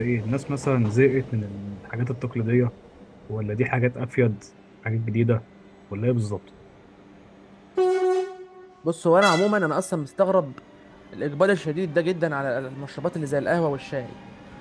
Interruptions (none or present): none